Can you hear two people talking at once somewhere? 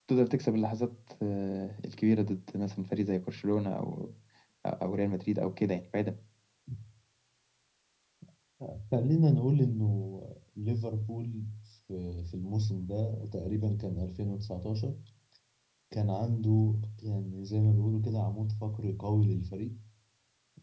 No

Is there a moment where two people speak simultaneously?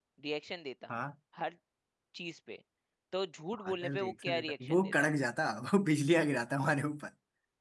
Yes, from 3.5 s

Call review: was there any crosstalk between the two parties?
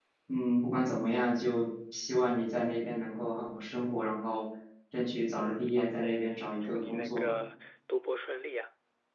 Yes, from 5.3 s

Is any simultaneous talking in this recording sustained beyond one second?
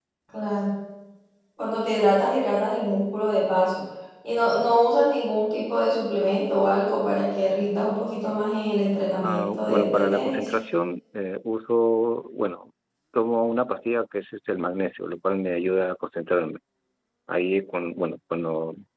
Yes, from 9.2 s

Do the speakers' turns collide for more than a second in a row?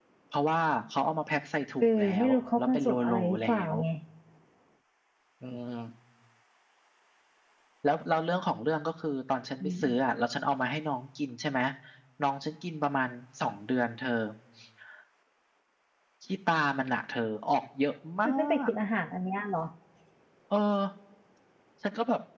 Yes, from 1.8 s

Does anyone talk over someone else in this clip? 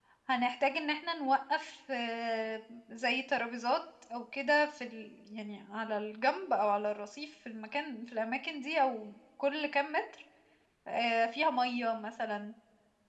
No

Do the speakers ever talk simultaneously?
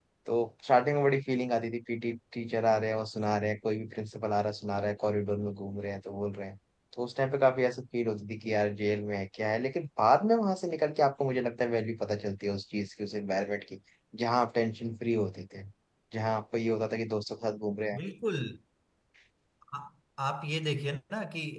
No

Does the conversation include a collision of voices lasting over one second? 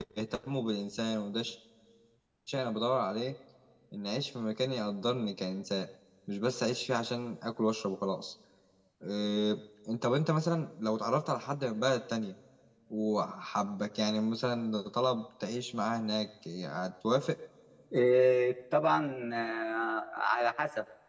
No

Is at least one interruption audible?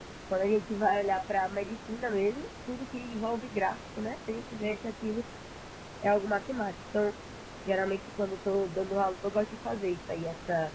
No

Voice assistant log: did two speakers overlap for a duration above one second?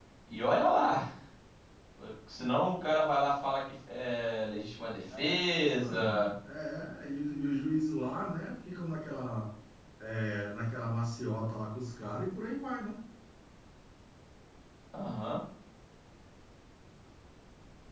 No

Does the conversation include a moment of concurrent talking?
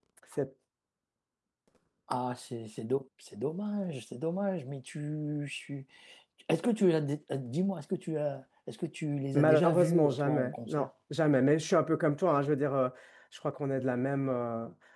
Yes, from 9.3 s

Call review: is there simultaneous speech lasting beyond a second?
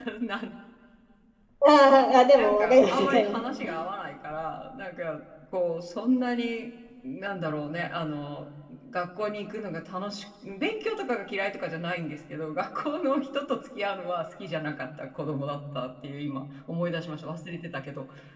Yes, from 2.3 s

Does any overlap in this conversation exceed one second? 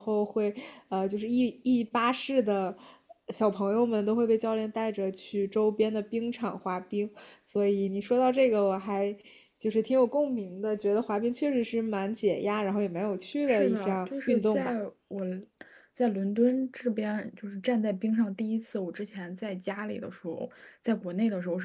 Yes, from 13.5 s

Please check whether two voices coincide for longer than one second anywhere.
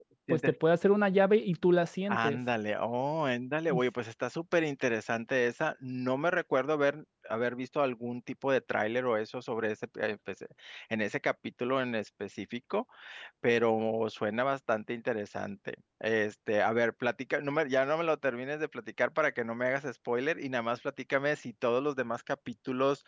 No

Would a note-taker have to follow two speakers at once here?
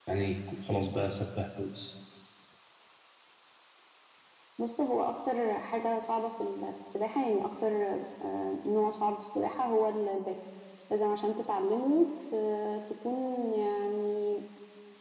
No

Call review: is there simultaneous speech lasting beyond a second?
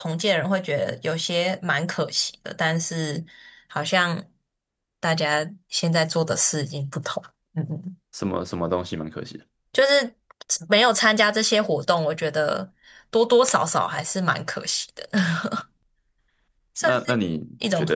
No

